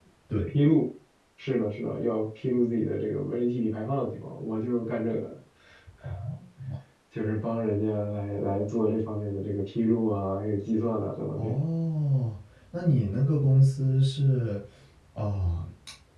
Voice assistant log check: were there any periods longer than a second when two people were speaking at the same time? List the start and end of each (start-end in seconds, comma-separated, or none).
none